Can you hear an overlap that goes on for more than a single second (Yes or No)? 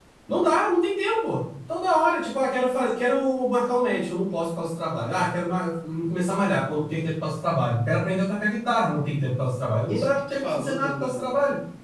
Yes